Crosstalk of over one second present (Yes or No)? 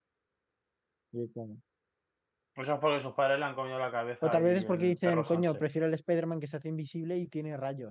Yes